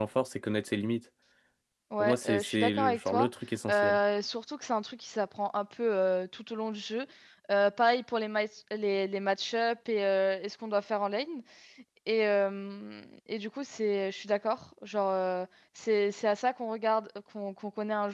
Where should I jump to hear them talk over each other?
2.0 s

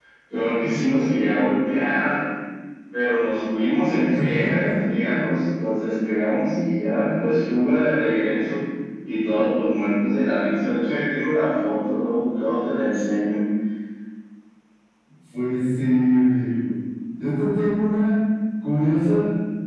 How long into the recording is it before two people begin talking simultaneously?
none

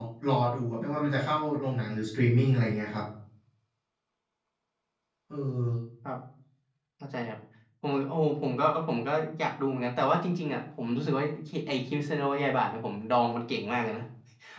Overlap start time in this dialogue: none

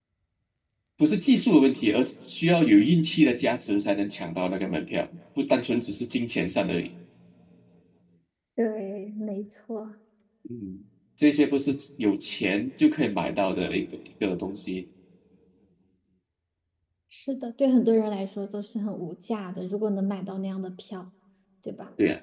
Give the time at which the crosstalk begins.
none

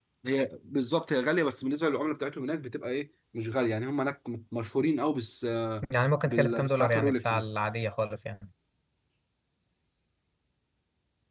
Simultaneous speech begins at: 6.2 s

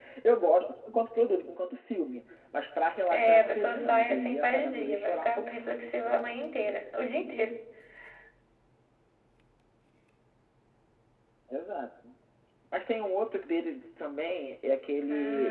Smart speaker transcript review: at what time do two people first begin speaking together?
3.1 s

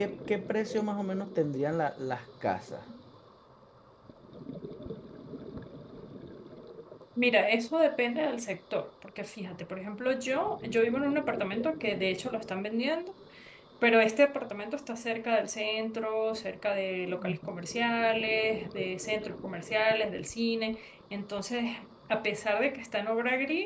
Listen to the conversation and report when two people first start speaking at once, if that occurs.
none

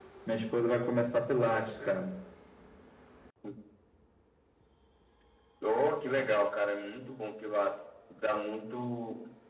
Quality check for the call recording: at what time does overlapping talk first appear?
none

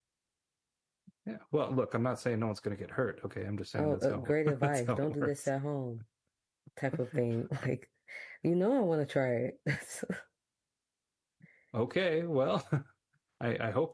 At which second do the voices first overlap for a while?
3.8 s

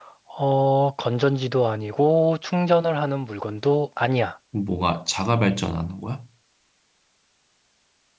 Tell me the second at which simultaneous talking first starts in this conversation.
none

